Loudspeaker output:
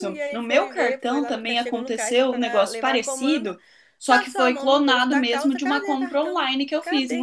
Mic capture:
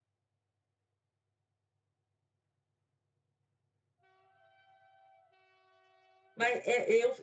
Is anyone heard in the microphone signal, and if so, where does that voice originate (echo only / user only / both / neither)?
user only